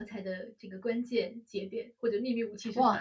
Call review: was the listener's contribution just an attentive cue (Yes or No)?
No